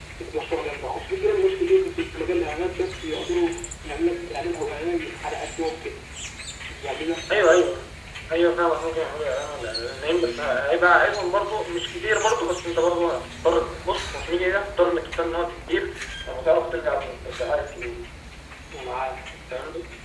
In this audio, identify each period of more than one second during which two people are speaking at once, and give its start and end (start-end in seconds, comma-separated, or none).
none